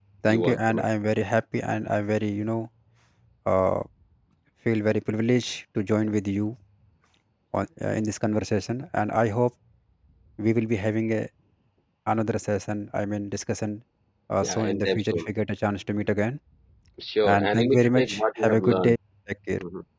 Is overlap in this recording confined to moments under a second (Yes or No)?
No